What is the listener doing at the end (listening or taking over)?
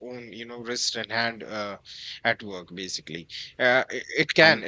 listening